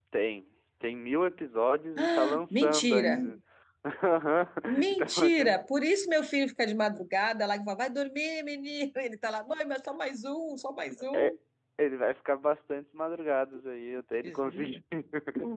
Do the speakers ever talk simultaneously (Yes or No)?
Yes